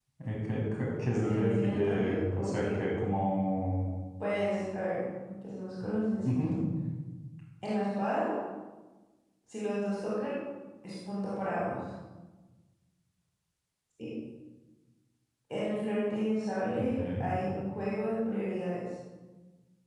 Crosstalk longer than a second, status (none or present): present